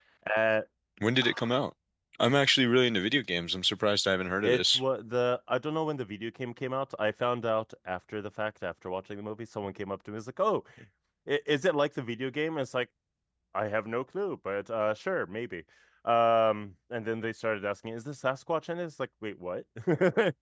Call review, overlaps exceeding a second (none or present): none